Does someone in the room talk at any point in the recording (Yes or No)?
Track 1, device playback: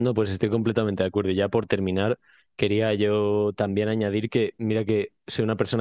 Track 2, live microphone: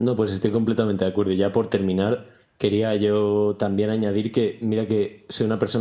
No